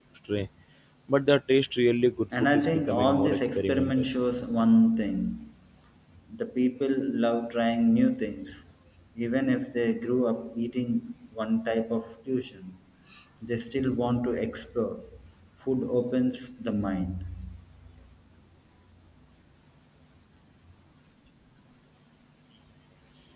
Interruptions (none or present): present